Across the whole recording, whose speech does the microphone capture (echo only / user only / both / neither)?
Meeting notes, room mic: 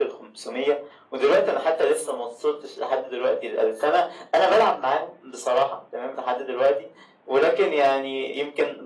echo only